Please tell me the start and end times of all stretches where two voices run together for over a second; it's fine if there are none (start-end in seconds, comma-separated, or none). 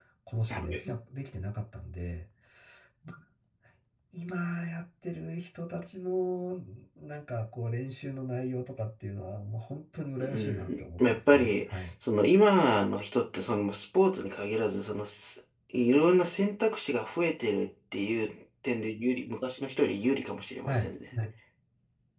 10.2-11.9